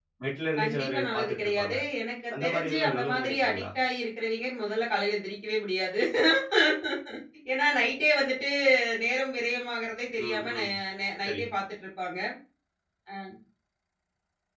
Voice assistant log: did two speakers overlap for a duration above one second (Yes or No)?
Yes